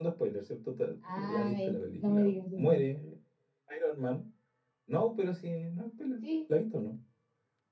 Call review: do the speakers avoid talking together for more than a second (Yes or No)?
No